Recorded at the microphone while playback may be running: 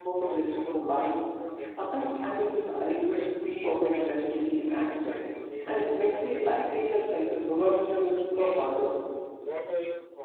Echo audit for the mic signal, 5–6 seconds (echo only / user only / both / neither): both